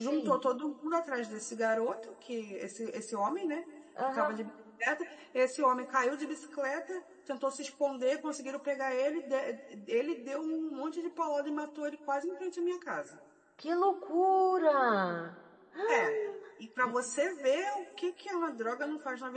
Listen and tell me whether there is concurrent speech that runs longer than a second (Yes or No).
No